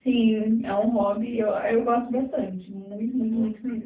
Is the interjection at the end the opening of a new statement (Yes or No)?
No